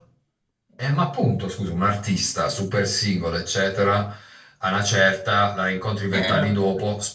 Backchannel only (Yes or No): Yes